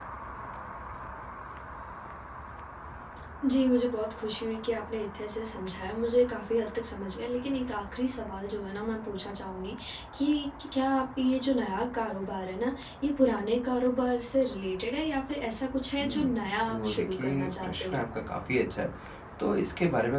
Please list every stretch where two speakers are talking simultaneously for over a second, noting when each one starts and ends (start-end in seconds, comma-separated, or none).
16.7-18.0